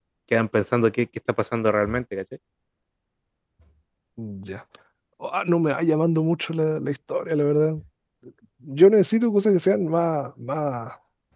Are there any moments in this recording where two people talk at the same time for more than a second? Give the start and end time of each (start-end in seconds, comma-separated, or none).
none